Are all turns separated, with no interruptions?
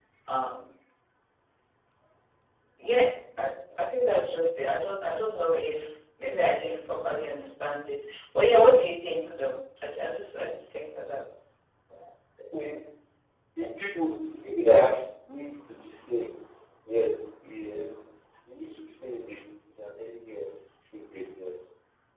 Yes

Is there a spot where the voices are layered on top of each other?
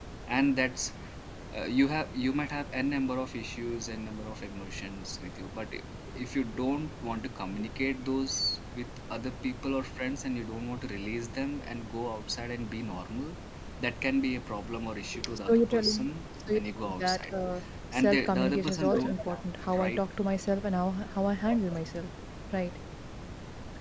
Yes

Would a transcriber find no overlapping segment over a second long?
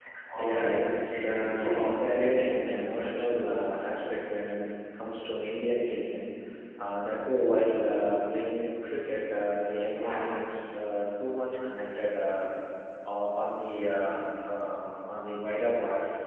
No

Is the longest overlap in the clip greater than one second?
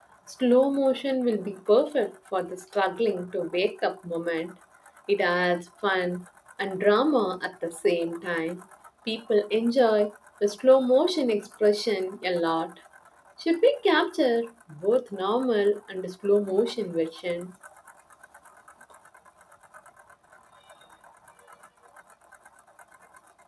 No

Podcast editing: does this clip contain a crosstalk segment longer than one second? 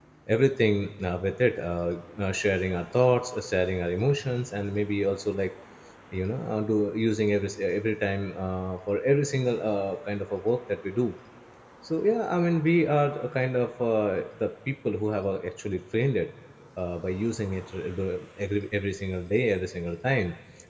No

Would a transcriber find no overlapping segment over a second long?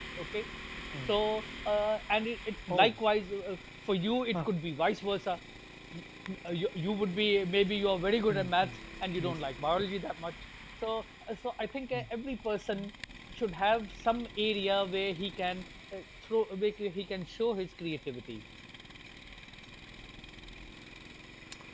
Yes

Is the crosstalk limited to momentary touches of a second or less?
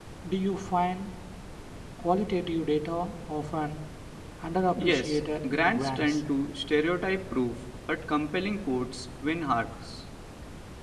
No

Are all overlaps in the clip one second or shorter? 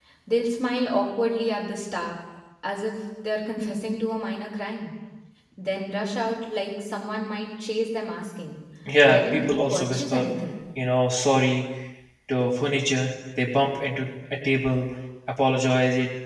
No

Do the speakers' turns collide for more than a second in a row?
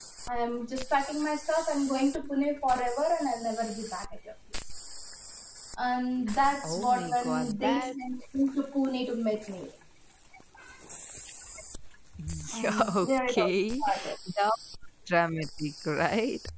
Yes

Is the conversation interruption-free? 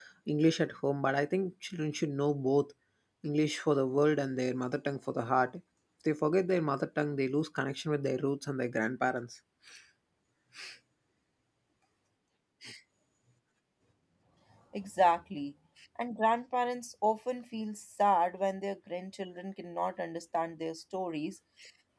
Yes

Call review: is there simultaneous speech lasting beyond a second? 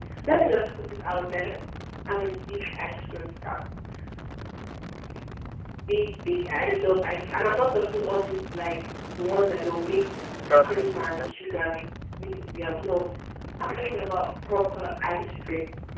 Yes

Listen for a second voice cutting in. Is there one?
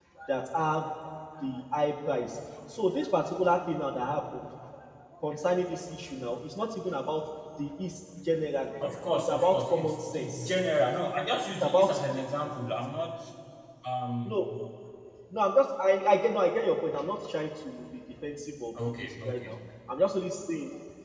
Yes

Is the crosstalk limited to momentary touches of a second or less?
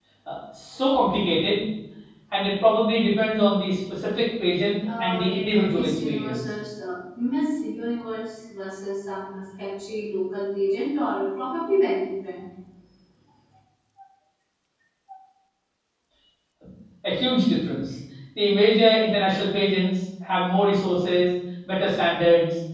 No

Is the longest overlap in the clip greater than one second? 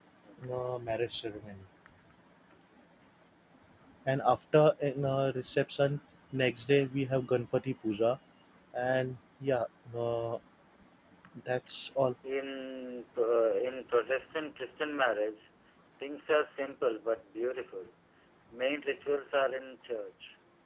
No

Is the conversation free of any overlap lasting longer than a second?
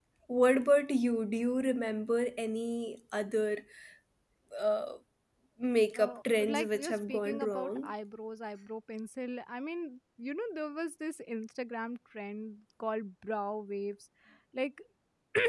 No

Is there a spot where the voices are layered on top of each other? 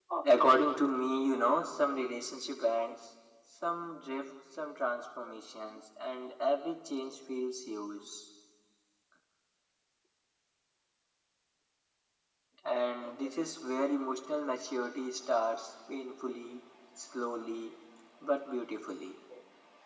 No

